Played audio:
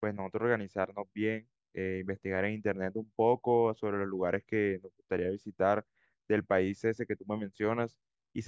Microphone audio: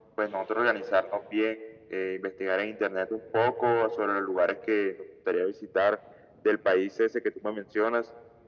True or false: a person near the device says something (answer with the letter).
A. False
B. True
A